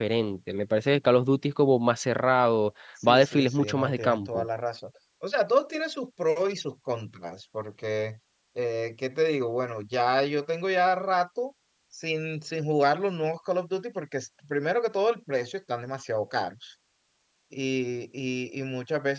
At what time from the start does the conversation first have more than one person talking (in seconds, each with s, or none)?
3.0 s